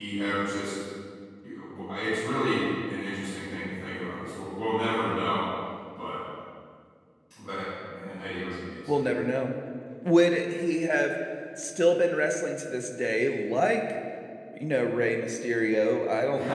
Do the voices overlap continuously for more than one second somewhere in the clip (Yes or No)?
No